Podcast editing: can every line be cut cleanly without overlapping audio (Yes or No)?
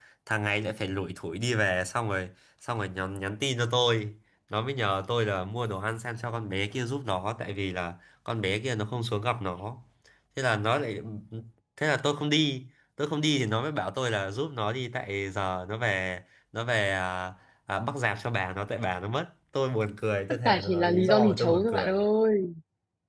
No